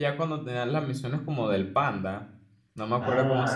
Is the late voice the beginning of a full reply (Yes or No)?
Yes